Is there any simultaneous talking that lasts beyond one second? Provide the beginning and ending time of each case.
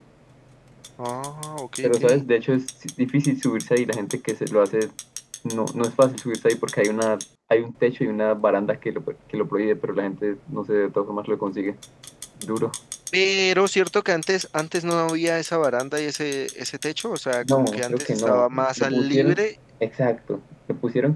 17.4-19.4

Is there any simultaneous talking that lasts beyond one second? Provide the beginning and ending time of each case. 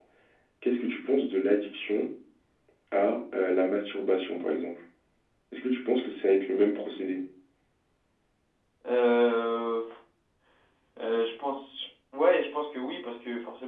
none

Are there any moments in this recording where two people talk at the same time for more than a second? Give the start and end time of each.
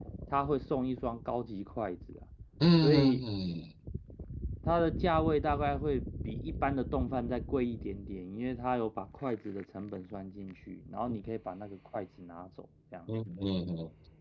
none

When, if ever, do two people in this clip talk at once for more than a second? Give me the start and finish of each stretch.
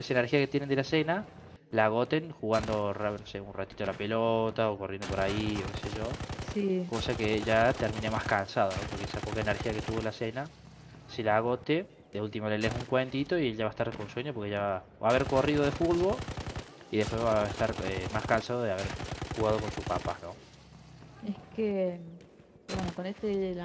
none

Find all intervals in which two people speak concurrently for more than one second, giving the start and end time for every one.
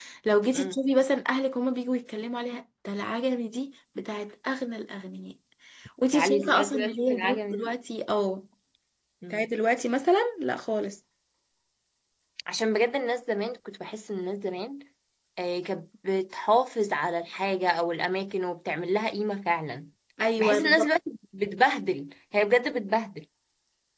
6.1-7.7

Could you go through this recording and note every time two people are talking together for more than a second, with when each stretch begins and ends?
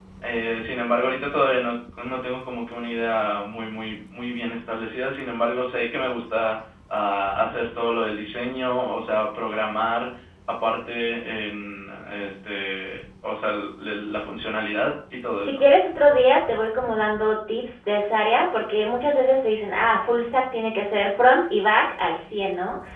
none

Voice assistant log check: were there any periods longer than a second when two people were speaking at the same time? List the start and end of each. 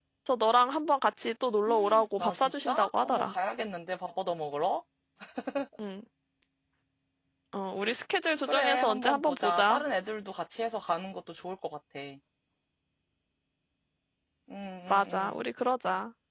1.7-3.3, 8.5-9.8

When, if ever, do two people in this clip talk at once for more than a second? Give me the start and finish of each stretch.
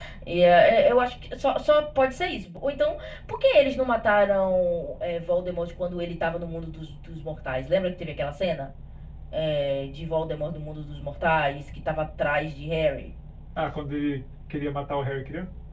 none

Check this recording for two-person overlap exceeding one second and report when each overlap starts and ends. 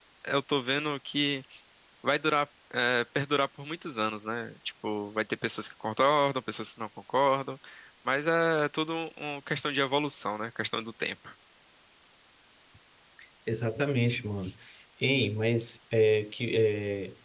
none

